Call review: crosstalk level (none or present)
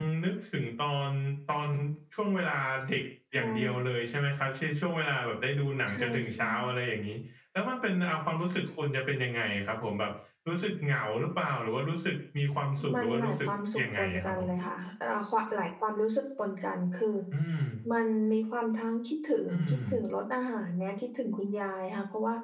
present